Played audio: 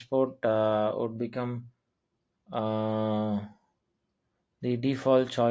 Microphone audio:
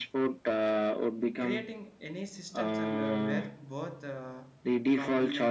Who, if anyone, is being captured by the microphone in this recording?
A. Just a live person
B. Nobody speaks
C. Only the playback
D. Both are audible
D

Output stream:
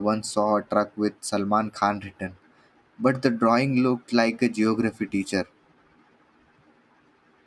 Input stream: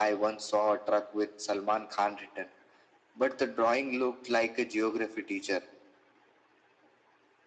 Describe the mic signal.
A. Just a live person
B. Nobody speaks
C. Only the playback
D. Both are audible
C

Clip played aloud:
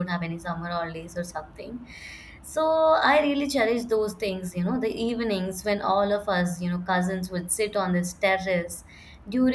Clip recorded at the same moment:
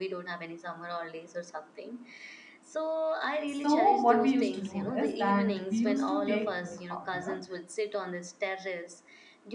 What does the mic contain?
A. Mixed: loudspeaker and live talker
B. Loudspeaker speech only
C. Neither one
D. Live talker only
A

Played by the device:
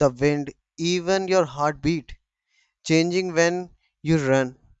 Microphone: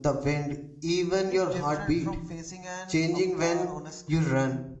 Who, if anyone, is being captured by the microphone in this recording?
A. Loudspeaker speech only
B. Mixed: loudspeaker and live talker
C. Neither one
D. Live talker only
B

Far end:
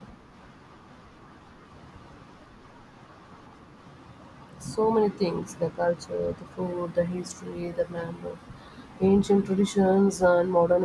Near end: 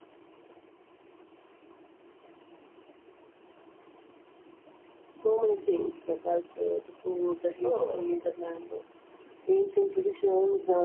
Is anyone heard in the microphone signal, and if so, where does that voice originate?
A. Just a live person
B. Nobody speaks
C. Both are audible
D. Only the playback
C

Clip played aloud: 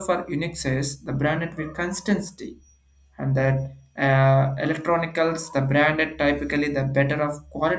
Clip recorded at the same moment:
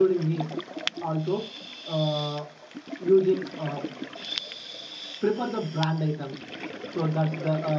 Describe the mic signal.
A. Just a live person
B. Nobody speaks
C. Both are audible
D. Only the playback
A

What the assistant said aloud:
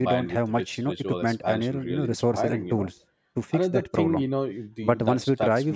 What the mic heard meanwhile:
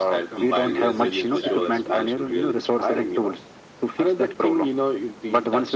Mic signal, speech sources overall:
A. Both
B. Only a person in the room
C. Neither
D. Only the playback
A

